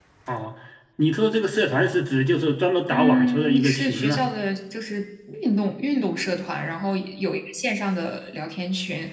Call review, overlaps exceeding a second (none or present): present